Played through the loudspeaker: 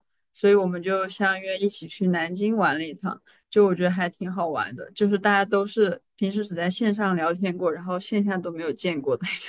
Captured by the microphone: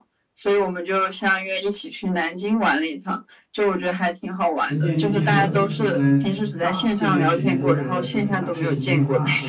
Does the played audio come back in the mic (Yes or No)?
Yes